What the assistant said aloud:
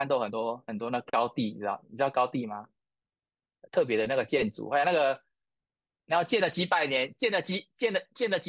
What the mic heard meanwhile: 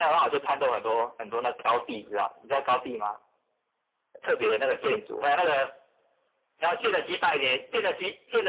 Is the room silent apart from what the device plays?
Yes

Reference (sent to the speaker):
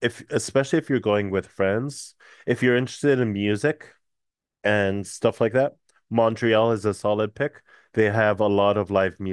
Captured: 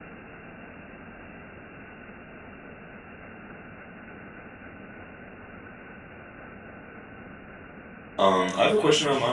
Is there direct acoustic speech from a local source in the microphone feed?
Yes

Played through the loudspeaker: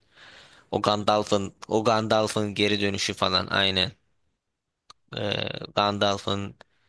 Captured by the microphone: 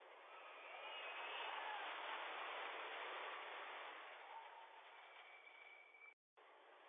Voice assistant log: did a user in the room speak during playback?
No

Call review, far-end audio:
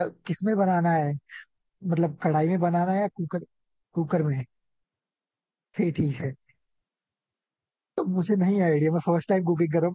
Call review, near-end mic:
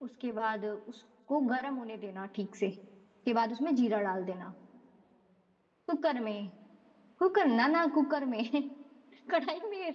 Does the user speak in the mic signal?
Yes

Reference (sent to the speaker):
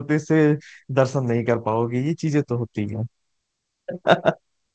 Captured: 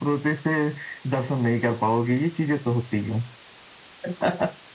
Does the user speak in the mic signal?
No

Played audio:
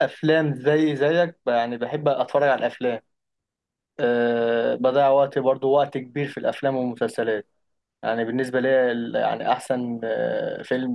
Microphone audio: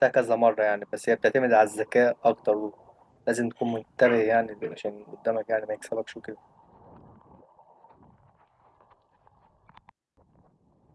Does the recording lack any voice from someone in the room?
No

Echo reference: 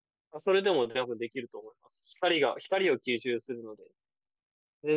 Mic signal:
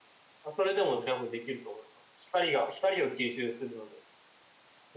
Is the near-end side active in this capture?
No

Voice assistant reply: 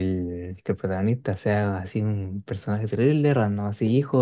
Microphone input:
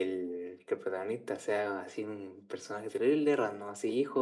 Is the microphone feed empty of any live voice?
Yes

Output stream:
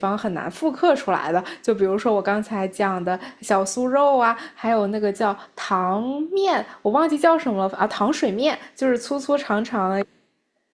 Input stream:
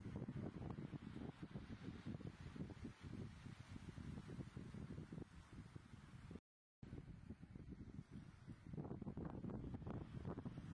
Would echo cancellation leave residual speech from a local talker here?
No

